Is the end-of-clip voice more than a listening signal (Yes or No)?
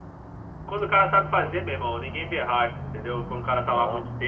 No